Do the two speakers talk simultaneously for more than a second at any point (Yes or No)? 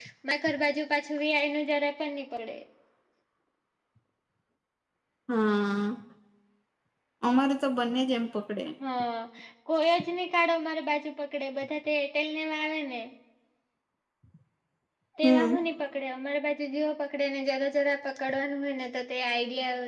No